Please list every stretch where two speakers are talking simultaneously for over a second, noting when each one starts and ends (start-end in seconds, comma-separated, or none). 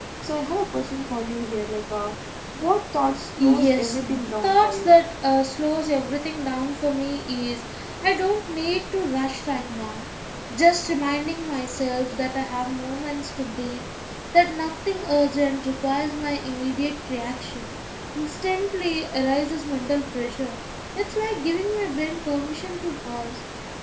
3.4-4.9